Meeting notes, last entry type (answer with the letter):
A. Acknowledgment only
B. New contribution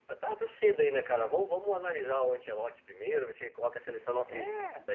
A